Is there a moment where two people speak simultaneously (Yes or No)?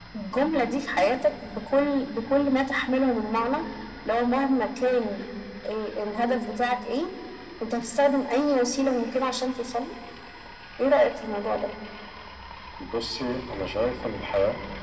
No